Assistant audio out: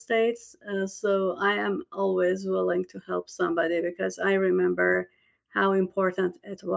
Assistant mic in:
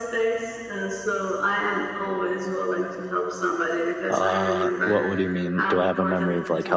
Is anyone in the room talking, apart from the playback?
Yes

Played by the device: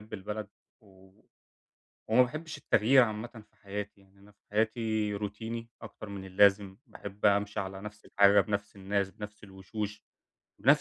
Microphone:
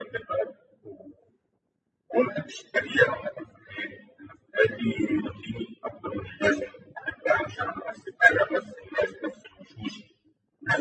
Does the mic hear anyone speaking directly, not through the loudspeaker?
No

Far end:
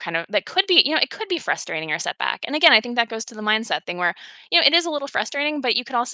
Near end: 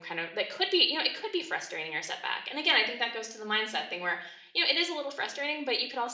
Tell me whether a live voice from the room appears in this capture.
No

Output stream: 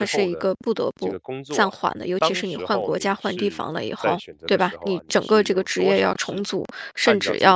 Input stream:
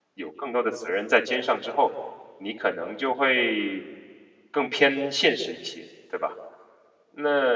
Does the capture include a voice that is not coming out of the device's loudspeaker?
Yes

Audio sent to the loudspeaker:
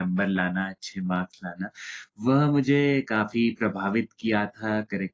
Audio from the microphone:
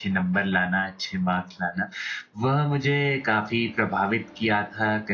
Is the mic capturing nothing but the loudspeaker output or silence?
Yes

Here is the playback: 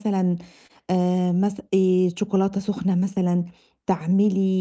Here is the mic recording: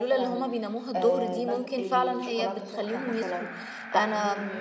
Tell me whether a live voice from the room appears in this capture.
Yes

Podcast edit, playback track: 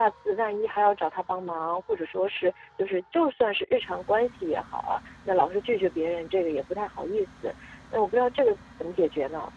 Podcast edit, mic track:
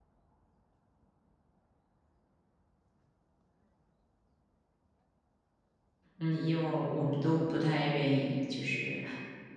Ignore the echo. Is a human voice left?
Yes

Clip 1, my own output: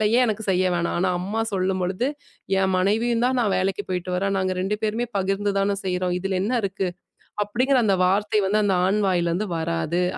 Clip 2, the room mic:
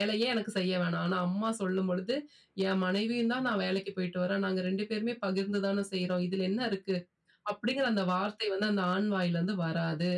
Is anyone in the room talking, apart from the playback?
No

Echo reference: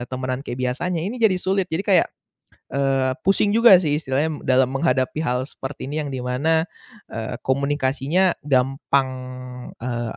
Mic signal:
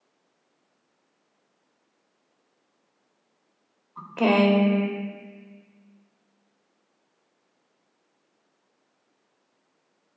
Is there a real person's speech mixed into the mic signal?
Yes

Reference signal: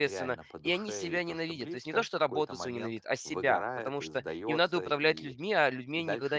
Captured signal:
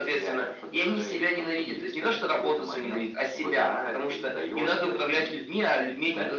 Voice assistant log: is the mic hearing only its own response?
Yes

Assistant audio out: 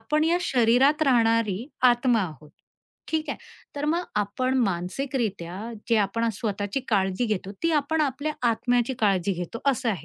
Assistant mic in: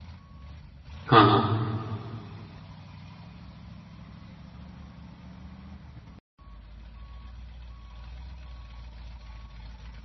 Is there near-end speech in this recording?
Yes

